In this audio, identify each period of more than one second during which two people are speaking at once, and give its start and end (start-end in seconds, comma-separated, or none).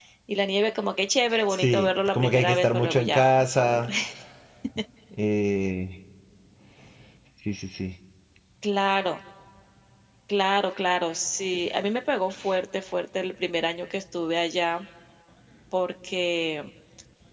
1.5-3.9